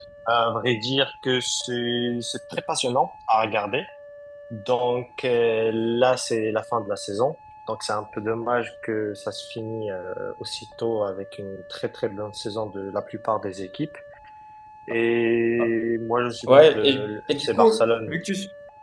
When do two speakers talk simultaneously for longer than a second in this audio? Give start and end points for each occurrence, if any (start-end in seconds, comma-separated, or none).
16.5-18.2